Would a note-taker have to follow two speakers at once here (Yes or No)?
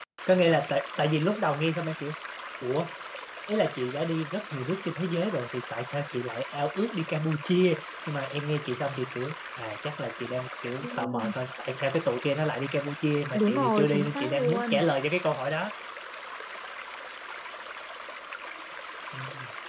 Yes